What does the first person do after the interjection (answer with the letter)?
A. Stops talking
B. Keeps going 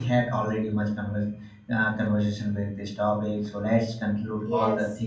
B